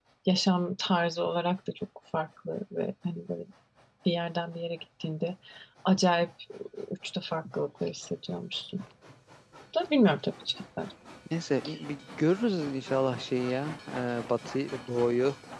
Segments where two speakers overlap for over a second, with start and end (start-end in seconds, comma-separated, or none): none